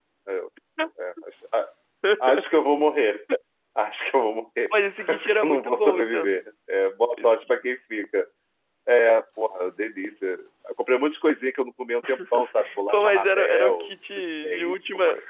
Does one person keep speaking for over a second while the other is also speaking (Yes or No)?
Yes